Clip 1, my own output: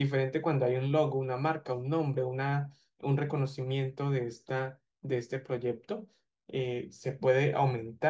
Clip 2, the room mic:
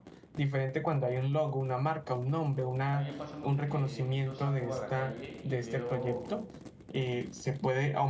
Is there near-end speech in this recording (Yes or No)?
Yes